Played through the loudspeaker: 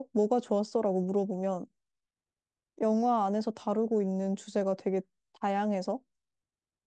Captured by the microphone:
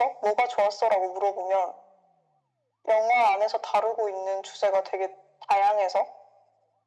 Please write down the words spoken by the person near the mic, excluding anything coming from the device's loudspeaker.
none

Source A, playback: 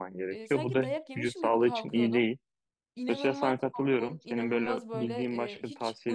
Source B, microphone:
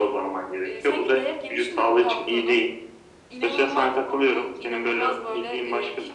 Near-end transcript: none

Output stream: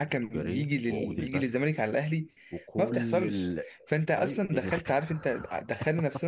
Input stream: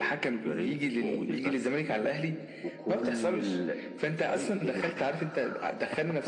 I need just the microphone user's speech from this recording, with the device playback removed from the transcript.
none

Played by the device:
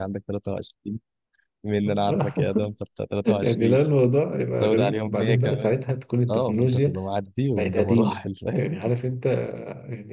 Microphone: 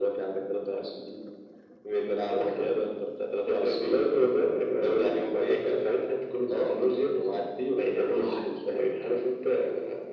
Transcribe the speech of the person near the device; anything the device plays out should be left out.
none

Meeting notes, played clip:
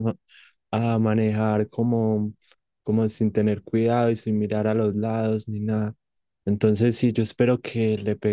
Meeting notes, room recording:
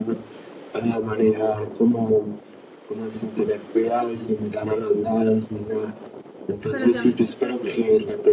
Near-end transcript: Pero ya me escuchas bien.

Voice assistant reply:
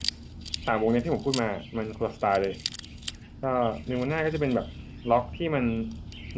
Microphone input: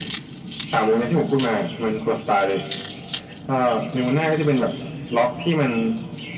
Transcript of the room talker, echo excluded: none

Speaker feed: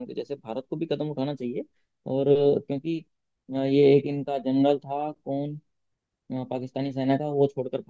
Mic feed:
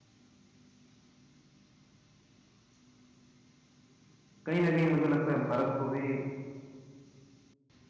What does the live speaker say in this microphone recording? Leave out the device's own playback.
कहीं ना कहीं मुझे लगता है भारत को भी

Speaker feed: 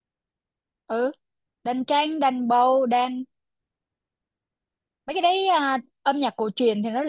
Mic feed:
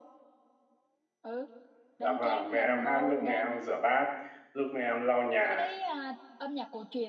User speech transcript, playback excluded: Dạ vâng, mẹ em hát lúc mẹ em rửa bát, lúc mẹ em lau nhà,

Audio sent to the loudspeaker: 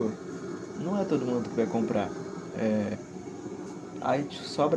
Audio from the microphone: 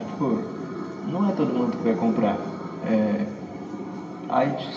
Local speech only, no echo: none

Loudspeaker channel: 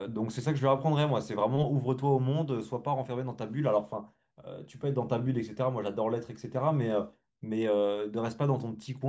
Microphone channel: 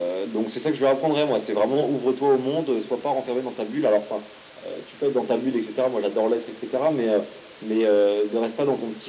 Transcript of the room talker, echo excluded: none

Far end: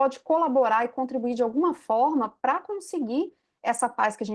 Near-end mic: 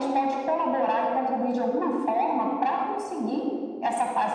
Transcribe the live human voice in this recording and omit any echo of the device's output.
none

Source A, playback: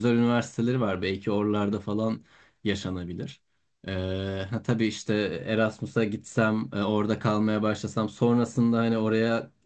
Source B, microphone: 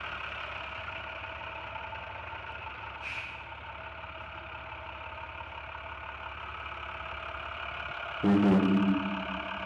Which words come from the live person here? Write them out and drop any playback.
Hı hı.

